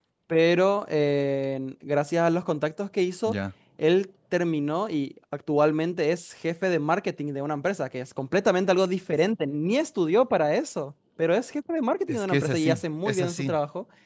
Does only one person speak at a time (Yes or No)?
No